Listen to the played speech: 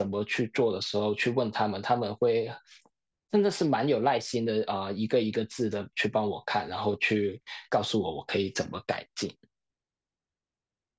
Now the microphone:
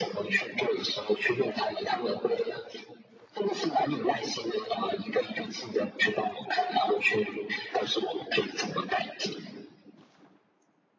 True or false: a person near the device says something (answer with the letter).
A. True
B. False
B